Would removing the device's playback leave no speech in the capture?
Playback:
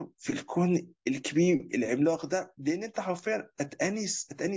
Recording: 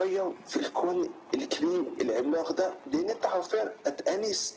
Yes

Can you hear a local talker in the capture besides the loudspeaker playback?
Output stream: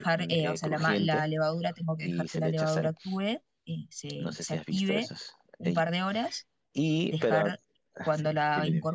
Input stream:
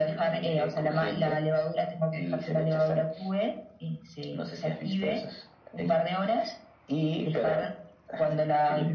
No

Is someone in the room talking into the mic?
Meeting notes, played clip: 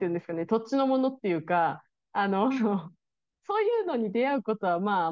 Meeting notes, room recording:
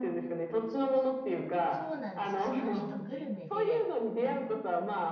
Yes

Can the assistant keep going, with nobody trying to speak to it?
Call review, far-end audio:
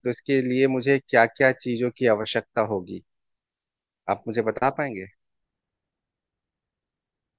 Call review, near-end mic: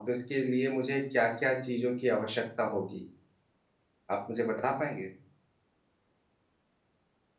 Yes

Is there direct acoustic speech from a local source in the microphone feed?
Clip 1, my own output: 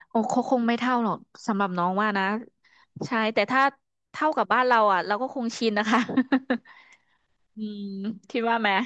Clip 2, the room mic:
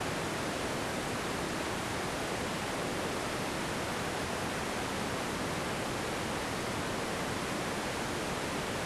No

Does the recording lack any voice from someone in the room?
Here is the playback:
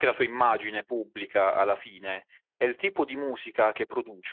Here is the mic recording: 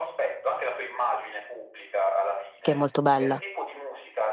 No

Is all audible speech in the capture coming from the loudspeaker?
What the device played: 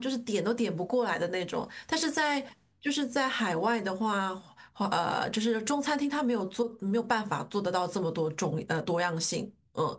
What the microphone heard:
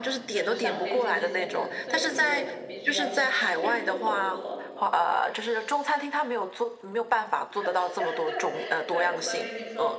No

